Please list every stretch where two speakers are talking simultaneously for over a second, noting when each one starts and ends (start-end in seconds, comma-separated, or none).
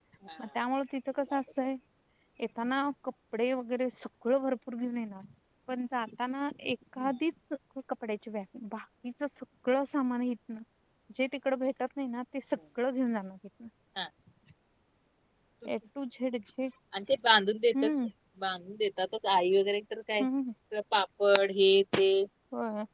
none